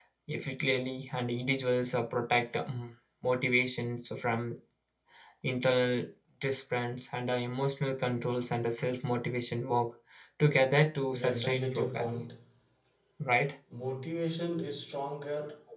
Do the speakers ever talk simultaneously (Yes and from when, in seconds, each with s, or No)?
Yes, from 11.0 s